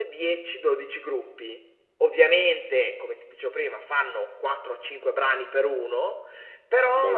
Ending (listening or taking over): listening